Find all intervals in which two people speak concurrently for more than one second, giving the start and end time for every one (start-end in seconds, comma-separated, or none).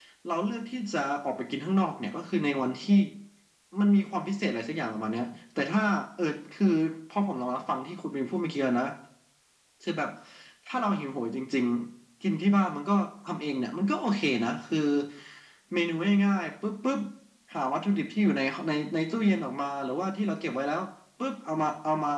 none